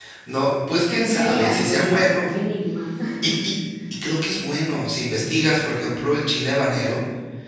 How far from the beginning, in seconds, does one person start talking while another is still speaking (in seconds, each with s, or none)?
0.9 s